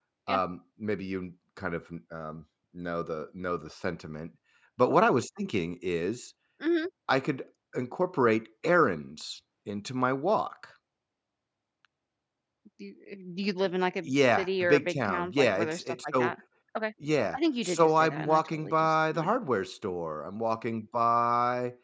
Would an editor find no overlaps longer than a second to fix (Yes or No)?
No